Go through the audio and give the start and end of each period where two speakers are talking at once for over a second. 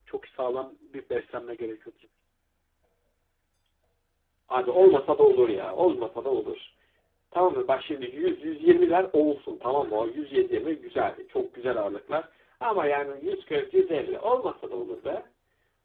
none

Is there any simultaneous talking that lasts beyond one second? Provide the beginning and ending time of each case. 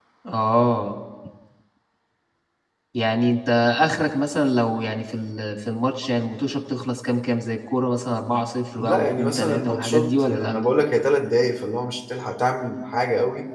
8.8-10.5

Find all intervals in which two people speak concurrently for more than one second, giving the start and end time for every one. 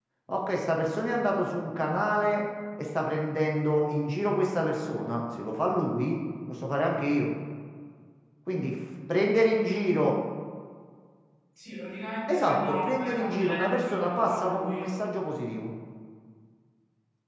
12.3-14.9

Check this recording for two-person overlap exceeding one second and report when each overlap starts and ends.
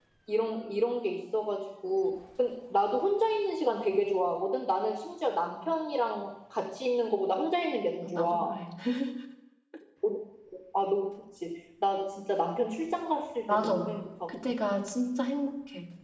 none

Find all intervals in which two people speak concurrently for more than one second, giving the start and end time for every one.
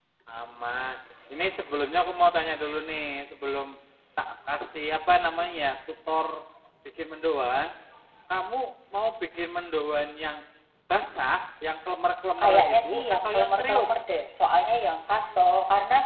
12.4-13.9

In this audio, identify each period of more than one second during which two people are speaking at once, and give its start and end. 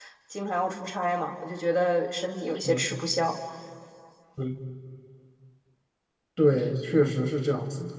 none

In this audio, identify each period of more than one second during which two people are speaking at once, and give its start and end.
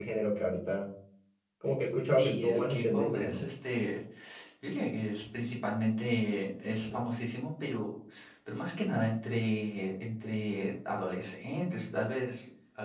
2.2-3.4

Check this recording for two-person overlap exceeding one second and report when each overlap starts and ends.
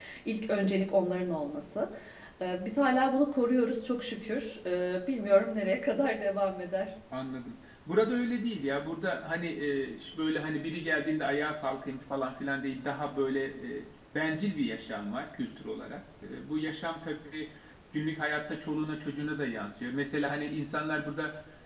none

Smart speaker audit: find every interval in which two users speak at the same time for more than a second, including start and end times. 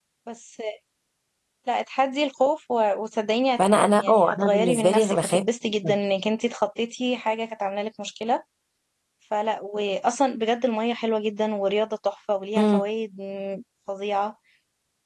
4.0-5.4

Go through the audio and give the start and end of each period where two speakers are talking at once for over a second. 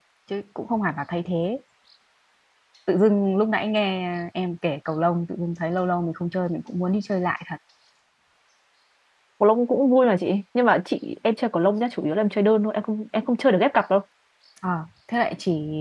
none

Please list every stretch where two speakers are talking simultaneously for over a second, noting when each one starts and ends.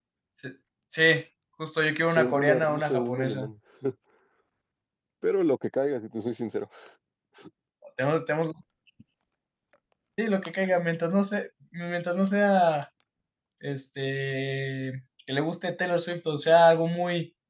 2.1-3.5

